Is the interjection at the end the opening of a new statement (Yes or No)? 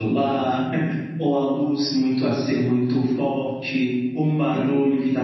No